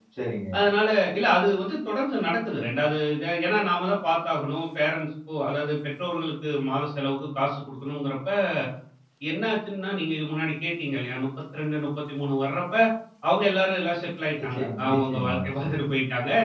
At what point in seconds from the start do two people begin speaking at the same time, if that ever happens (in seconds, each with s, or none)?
14.4 s